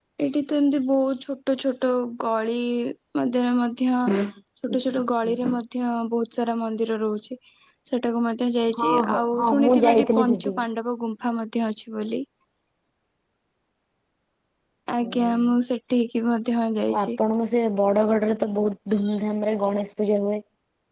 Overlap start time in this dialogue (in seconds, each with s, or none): 8.8 s